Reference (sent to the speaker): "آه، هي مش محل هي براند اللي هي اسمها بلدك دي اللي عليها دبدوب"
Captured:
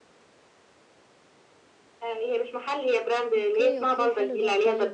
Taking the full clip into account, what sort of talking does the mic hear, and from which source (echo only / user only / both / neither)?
both